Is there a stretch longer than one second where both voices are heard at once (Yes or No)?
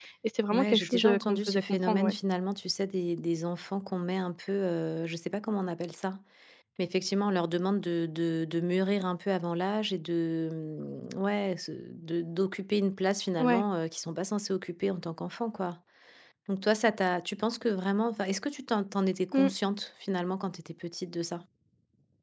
Yes